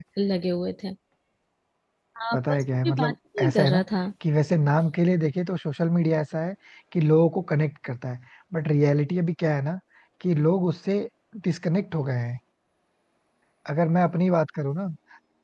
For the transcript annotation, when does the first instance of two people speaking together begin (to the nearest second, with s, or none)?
2 s